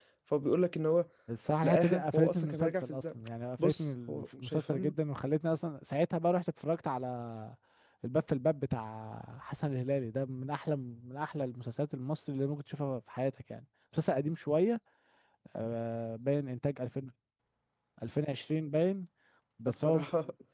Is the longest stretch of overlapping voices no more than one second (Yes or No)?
No